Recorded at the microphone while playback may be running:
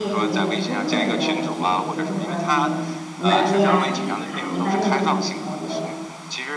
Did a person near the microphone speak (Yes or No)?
Yes